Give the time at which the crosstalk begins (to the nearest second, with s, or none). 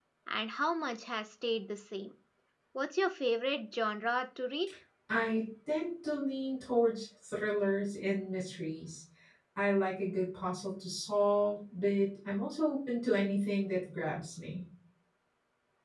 none